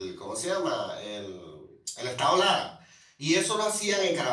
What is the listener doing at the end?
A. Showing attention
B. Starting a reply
A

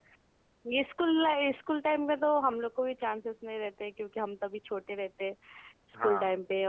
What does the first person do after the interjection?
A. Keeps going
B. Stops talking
A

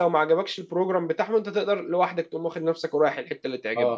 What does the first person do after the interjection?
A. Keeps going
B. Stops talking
B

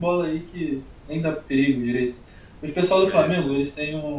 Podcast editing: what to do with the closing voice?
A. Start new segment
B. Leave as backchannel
B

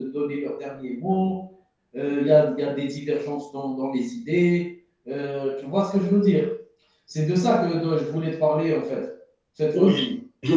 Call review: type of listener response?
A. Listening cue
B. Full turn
B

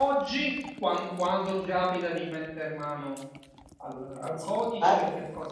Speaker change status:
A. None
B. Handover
A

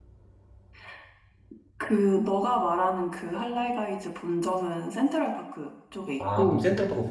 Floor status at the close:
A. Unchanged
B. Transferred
B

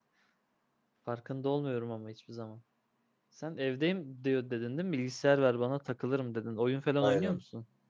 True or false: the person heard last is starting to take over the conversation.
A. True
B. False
A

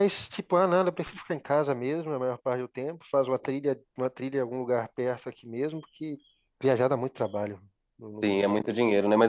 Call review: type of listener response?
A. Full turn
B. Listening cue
A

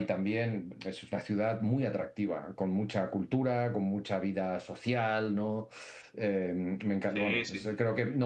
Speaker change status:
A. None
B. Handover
A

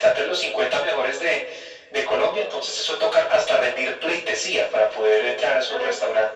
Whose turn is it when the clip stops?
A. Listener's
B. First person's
A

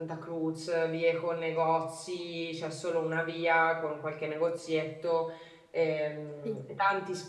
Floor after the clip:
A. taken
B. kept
B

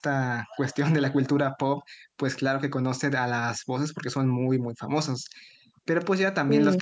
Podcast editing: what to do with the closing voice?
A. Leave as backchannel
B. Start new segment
A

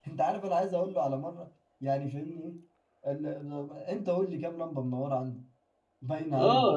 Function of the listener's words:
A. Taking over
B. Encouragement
A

